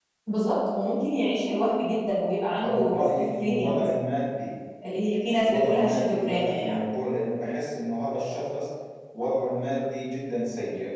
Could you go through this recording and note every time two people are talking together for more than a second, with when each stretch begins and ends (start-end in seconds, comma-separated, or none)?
2.6-3.9, 5.3-6.8